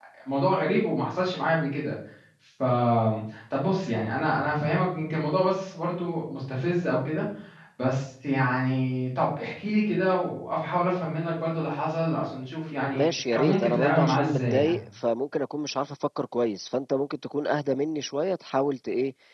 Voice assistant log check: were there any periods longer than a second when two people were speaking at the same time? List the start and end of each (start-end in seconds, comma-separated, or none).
12.9-14.7